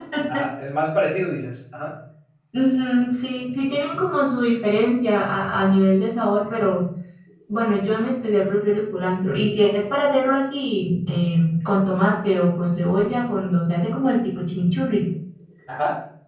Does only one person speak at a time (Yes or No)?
Yes